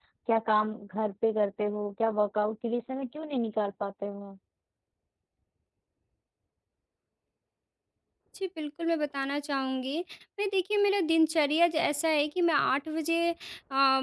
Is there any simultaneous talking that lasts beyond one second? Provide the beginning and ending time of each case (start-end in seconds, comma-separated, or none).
none